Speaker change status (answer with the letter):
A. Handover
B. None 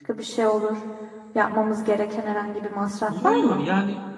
A